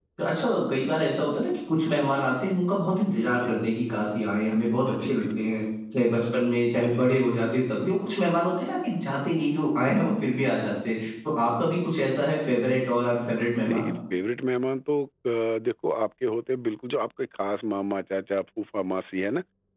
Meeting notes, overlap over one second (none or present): none